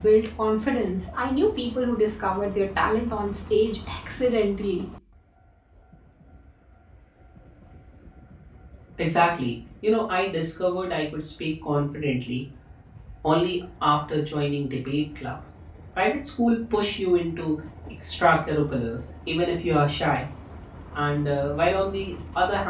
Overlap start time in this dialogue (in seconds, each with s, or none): none